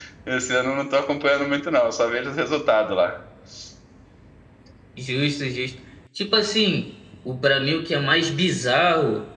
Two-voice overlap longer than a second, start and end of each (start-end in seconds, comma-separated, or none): none